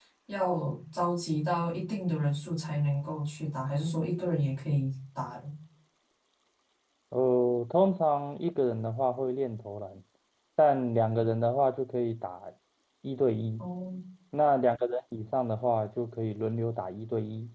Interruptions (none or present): none